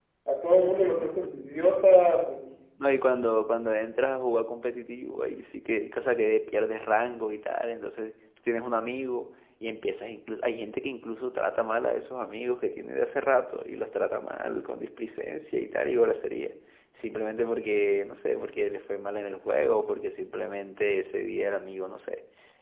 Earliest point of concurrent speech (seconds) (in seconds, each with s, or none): none